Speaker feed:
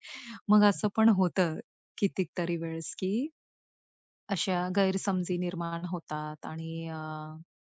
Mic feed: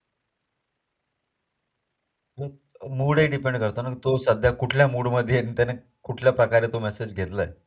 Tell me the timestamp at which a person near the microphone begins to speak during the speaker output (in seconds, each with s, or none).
2.4 s